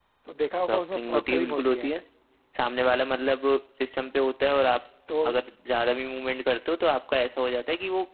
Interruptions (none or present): present